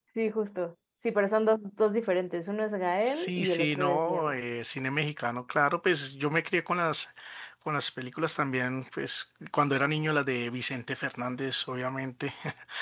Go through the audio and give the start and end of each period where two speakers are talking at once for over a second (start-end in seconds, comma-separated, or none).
3.0-4.4